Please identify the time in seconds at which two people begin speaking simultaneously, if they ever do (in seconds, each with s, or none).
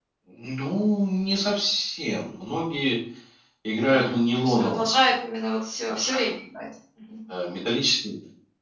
3.8 s